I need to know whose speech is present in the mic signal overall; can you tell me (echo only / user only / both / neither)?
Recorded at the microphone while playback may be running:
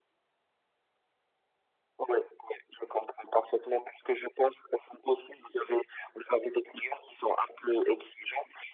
echo only